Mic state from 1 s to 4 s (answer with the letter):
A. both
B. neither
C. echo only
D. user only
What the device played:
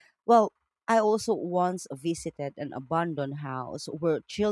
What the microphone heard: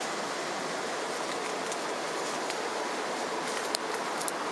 B